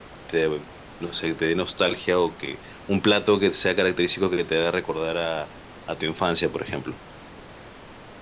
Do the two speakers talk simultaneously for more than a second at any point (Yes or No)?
No